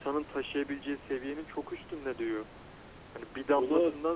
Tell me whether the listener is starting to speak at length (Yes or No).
No